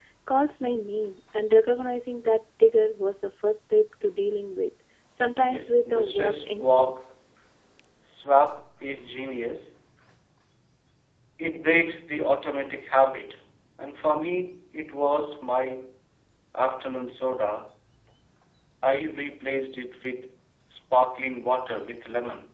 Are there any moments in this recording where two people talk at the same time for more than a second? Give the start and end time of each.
5.4-6.9

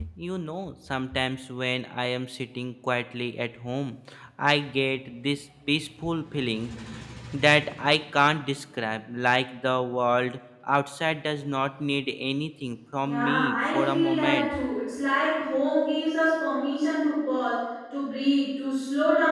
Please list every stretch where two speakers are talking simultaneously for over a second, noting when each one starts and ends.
13.0-14.5

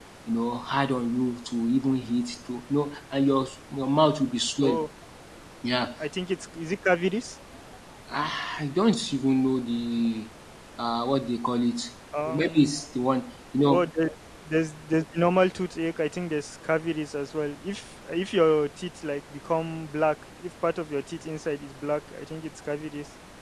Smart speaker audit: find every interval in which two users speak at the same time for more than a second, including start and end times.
none

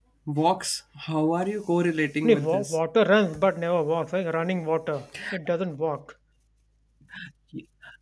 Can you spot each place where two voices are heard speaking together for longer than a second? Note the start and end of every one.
none

